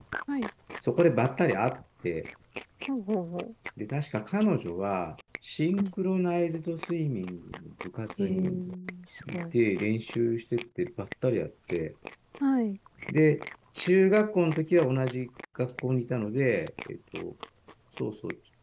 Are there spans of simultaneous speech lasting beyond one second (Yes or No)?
No